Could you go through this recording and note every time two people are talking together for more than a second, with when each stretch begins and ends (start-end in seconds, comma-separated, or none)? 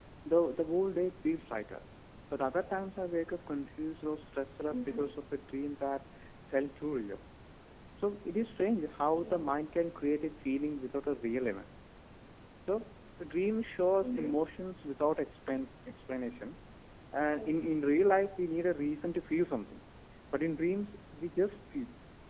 none